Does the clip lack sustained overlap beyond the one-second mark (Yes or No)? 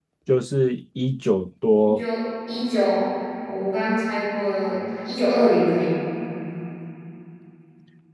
Yes